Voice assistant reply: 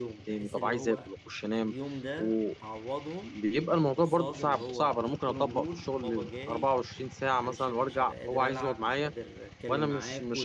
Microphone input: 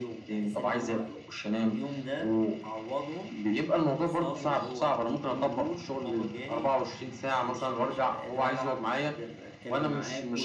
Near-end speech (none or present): none